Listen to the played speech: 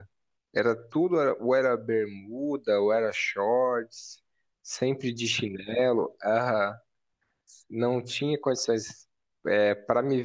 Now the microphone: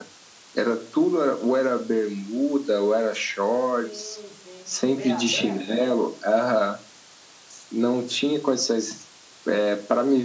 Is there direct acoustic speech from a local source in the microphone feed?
Yes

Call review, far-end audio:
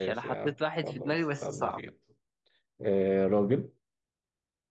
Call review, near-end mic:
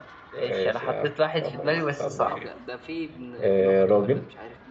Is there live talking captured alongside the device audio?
Yes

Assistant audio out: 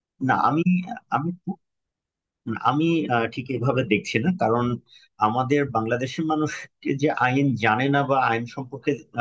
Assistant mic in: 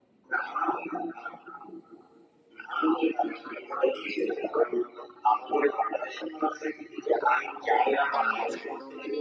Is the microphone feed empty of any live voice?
No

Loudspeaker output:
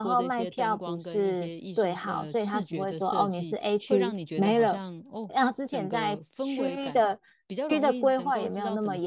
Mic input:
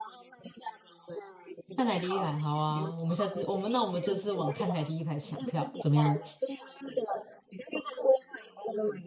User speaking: Yes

